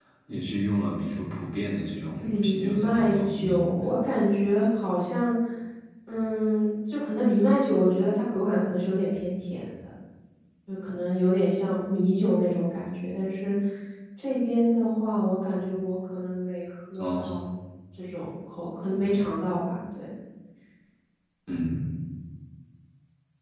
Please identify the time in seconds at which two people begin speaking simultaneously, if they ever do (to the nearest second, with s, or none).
2 s